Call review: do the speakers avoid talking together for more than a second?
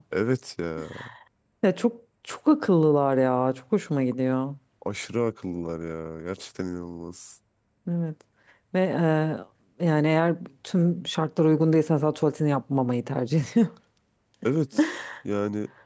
Yes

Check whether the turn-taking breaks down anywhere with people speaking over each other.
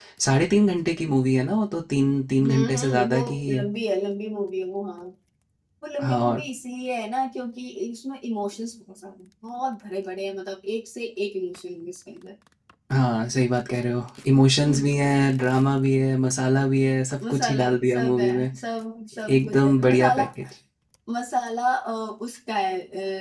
Yes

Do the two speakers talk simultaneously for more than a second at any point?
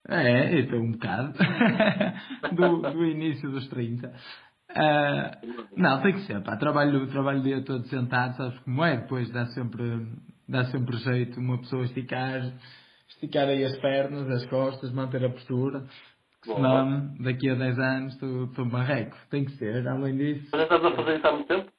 No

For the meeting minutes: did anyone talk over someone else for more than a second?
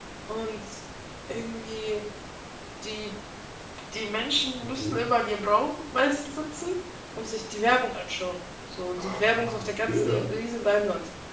Yes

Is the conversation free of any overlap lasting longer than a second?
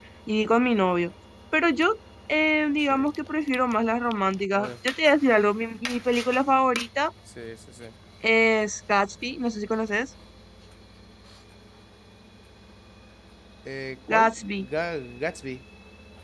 Yes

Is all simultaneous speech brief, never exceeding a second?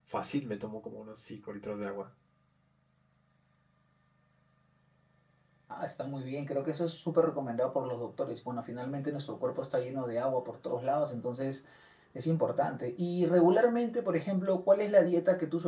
Yes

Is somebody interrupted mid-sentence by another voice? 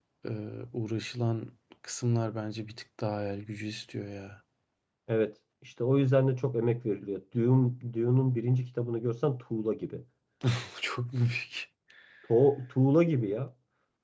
No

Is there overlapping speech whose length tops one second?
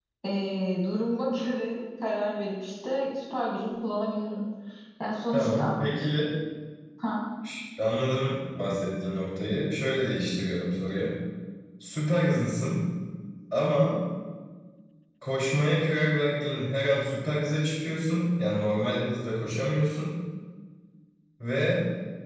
No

